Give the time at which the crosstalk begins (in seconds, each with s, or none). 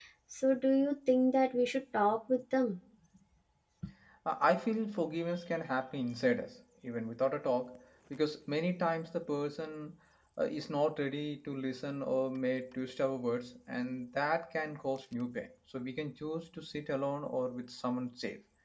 none